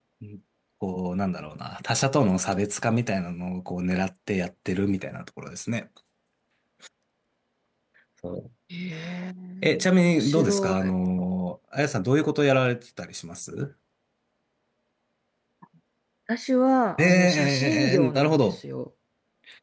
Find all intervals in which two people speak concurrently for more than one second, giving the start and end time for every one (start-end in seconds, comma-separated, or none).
9.6-10.9, 17.0-18.6